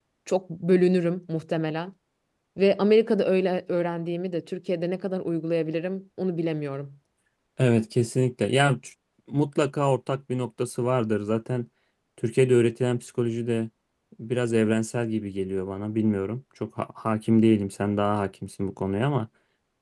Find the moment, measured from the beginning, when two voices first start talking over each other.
none

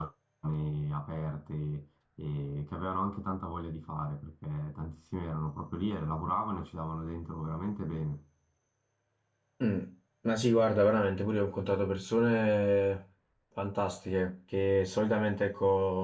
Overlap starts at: none

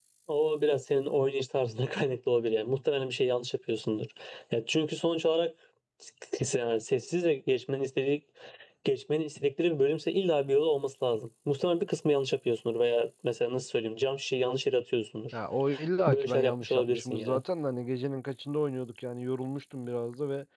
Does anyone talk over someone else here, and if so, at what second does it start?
16.1 s

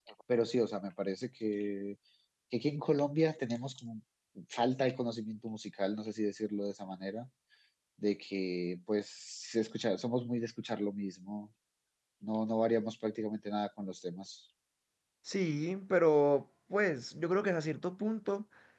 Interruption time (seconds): none

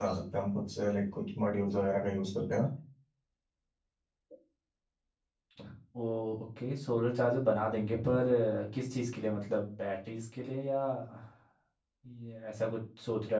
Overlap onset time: none

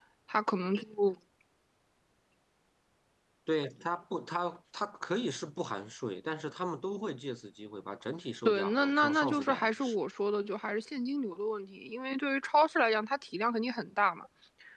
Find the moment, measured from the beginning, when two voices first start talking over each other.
8.4 s

